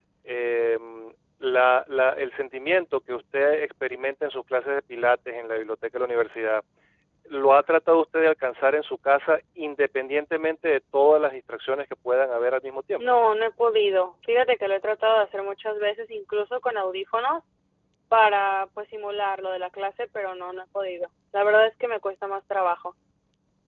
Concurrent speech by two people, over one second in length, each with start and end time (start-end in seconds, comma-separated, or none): none